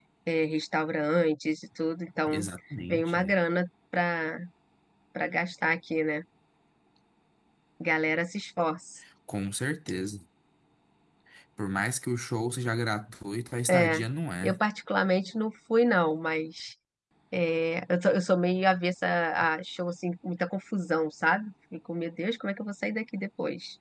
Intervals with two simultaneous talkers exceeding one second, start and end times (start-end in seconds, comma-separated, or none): none